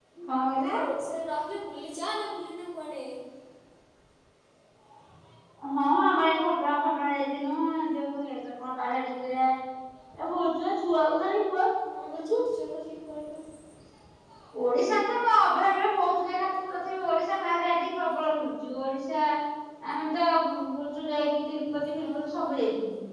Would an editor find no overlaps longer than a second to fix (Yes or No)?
Yes